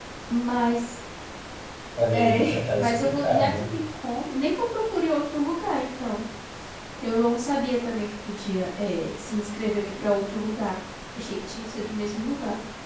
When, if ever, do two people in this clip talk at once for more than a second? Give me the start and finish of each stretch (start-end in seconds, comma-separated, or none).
2.1-3.5